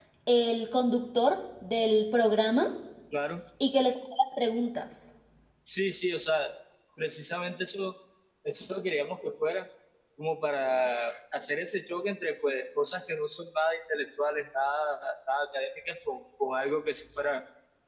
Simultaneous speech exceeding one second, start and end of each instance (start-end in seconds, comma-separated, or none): none